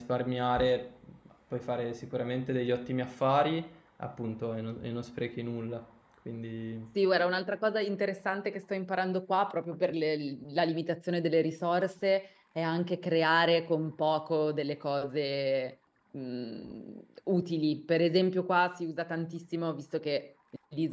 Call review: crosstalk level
none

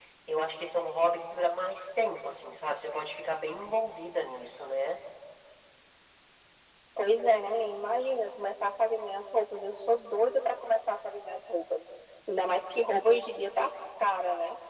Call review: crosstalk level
none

